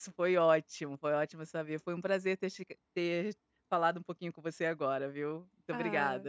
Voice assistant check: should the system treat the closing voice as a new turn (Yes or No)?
Yes